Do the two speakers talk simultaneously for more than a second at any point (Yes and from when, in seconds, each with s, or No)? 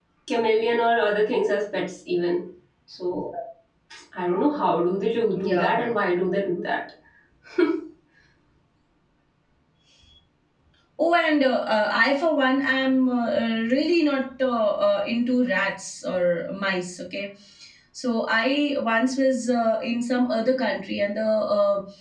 No